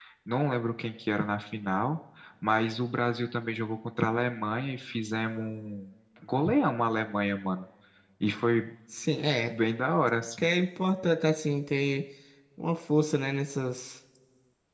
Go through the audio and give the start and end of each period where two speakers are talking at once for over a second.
none

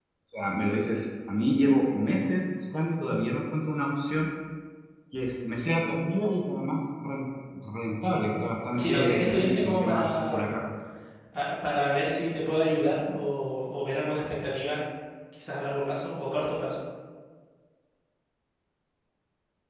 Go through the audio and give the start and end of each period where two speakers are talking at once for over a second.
8.8-10.5

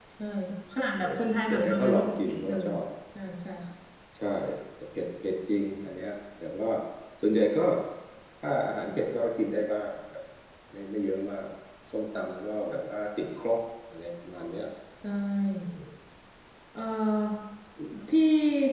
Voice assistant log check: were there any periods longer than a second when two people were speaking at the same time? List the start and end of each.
1.0-2.7

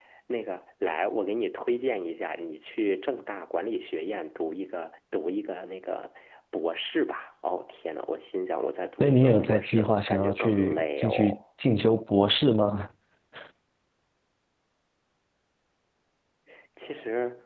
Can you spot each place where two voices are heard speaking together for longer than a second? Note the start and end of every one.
9.0-11.4

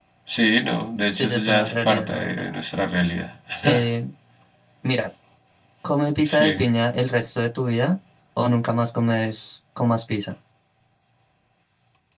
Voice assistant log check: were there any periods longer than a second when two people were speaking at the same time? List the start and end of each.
1.1-2.4

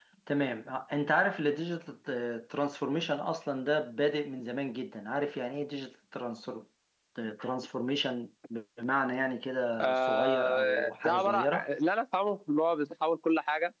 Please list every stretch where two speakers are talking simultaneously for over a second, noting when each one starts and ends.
9.8-11.7

